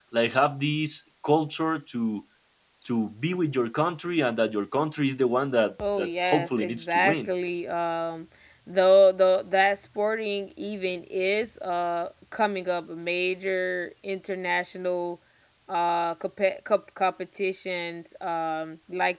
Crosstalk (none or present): present